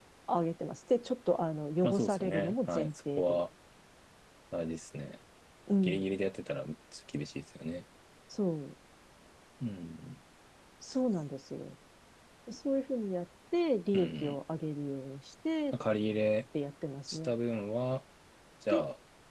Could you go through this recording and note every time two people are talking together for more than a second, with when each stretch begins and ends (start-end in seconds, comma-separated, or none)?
1.8-3.4